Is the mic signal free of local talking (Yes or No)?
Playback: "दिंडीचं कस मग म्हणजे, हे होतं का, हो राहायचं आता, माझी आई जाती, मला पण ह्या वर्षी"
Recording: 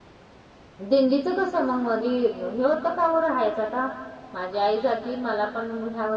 Yes